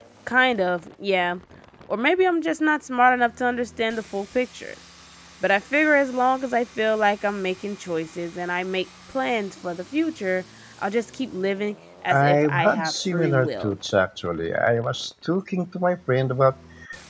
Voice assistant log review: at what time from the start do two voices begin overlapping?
12.1 s

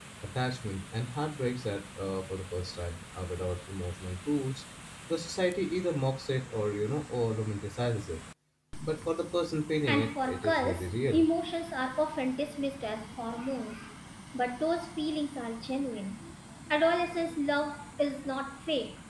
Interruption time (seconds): 9.8 s

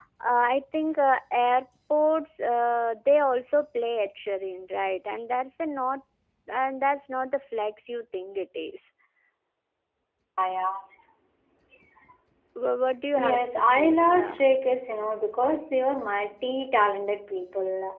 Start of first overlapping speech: 13.1 s

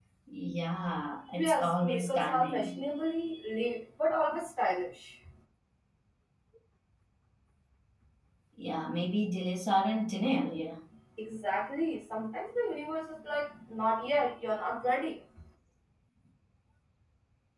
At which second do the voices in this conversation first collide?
1.4 s

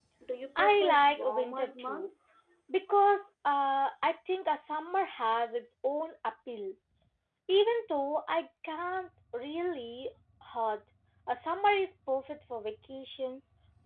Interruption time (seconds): 0.6 s

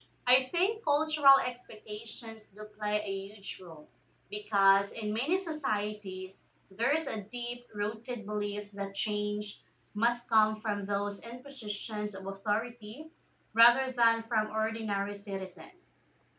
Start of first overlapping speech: none

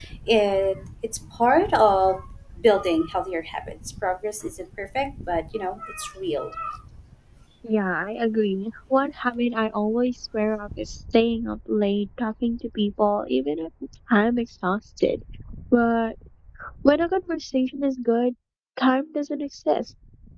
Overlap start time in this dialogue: none

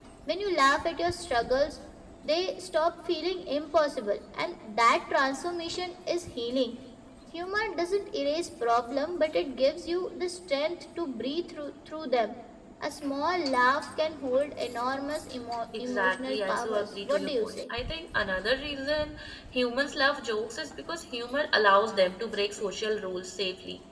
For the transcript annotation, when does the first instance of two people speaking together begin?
15.7 s

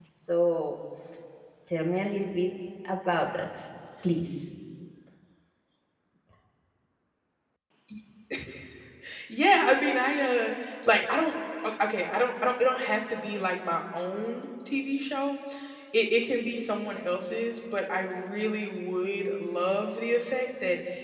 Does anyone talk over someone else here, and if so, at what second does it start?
none

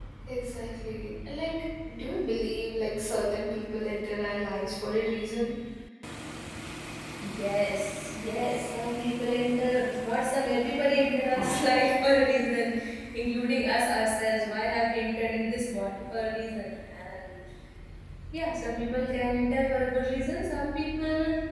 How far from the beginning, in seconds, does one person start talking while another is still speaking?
none

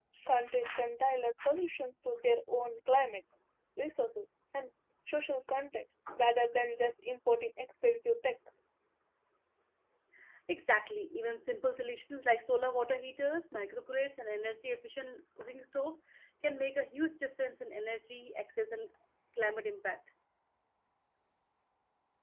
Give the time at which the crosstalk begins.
none

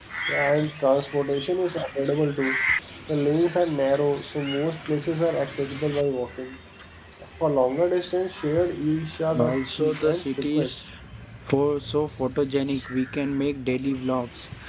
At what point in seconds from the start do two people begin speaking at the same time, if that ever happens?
9.3 s

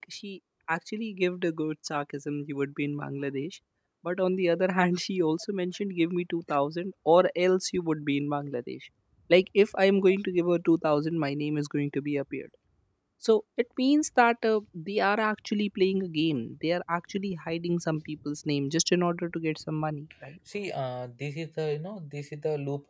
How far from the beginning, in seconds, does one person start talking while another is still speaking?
none

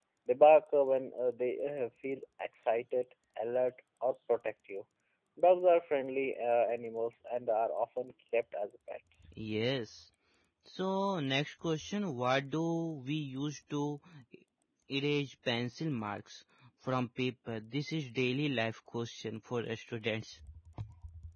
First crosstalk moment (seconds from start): none

